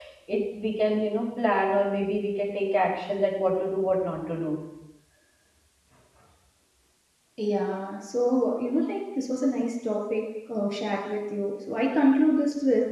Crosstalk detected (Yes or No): No